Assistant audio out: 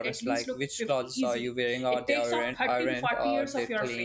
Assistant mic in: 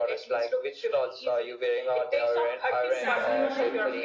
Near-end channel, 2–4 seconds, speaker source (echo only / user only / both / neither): both